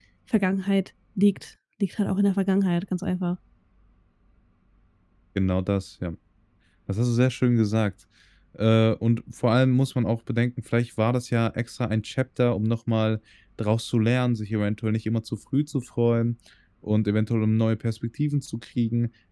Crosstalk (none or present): none